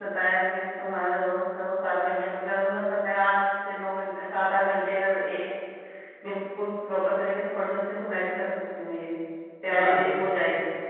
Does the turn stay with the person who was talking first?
No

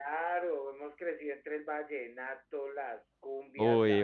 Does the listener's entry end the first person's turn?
Yes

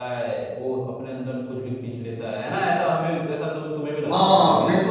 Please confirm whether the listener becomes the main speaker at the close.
Yes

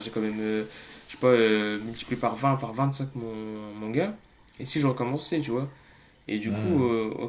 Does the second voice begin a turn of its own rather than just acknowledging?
No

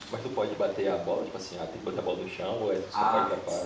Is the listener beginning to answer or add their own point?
Yes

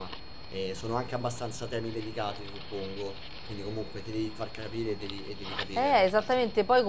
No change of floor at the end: No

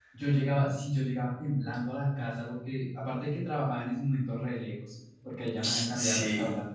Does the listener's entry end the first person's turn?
No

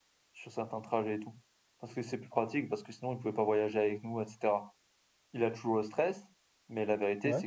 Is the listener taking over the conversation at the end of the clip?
No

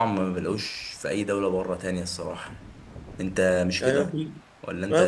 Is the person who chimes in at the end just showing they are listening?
No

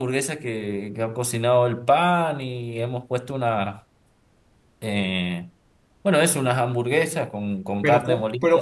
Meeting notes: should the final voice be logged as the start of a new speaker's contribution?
Yes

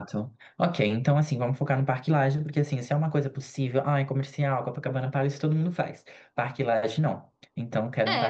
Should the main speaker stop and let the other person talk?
Yes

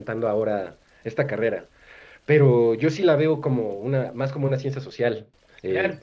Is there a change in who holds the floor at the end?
Yes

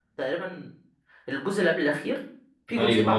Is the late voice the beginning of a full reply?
Yes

